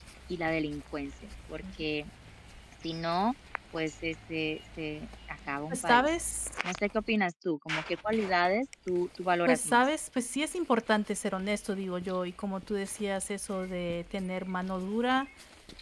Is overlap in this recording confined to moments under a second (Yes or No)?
Yes